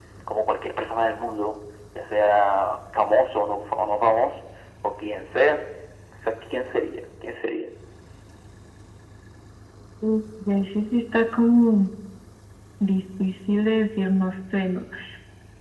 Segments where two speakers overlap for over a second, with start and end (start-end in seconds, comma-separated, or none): none